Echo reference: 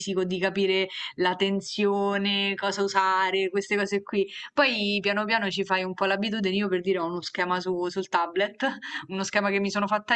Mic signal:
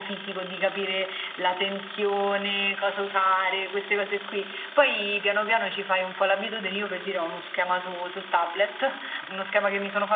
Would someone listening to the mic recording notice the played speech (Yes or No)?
Yes